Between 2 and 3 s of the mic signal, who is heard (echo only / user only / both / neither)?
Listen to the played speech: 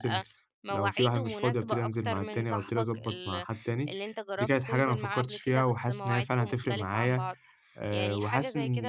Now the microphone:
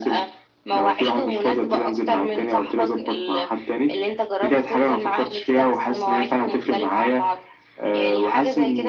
echo only